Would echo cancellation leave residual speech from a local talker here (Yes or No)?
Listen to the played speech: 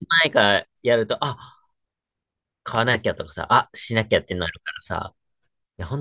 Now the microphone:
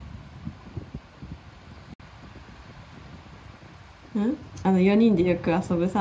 Yes